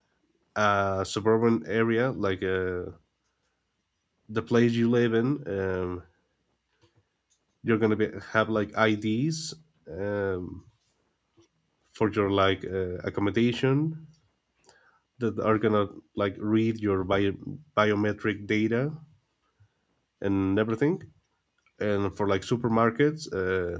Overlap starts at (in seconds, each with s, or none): none